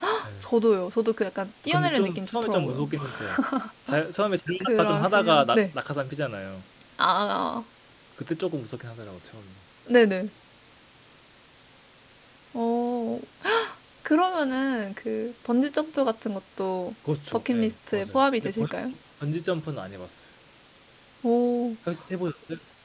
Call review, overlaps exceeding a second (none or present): present